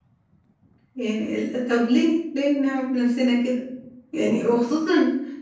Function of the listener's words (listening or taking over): listening